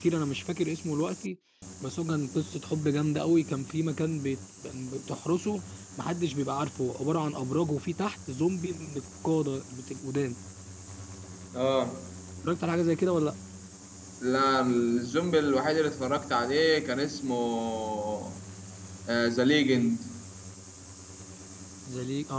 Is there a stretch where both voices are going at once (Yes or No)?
No